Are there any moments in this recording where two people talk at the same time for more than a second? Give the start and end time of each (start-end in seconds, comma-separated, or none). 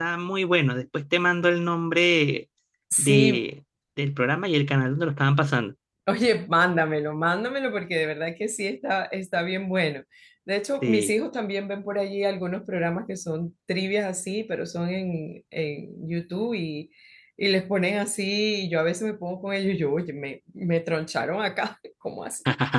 none